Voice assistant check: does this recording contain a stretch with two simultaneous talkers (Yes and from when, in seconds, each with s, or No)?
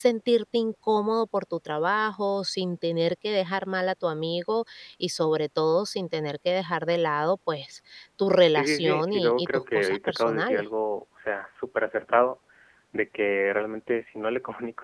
Yes, from 8.6 s